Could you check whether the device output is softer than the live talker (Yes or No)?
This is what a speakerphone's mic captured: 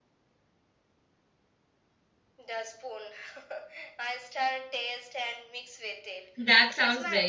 Yes